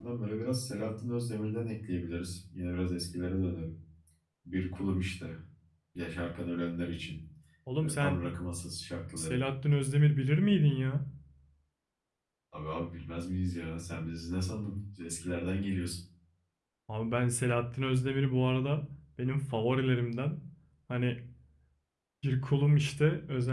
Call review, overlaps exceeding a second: none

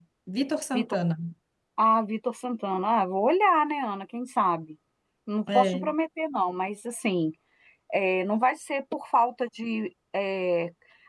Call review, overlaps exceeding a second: none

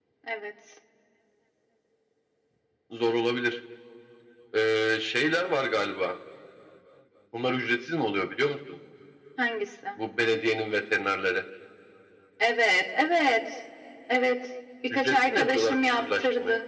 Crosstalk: present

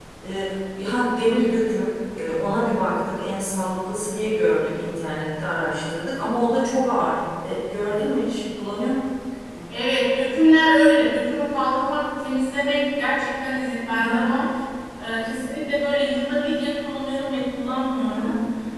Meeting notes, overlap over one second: none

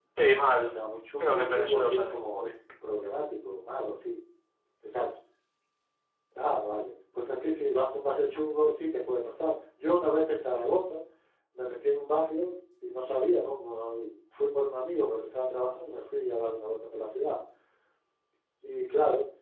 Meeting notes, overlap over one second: present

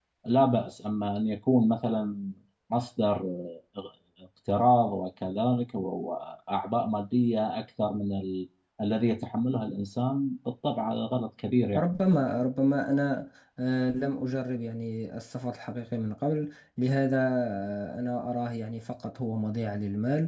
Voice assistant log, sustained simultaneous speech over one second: none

